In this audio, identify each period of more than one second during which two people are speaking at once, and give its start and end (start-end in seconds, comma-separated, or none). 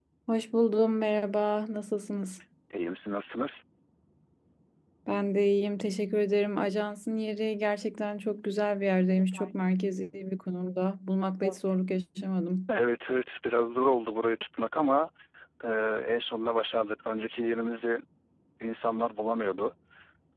none